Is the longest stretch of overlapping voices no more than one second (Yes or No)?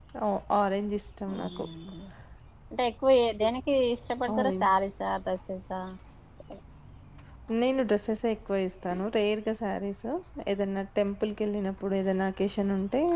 Yes